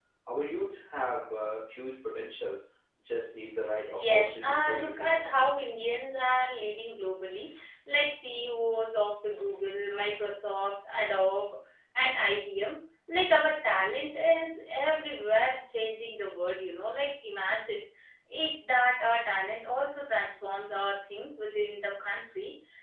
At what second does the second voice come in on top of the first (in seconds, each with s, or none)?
3.9 s